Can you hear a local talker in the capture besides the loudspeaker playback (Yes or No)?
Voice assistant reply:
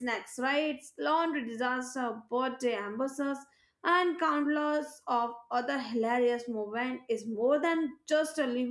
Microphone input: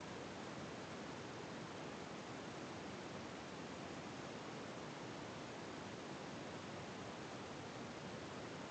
No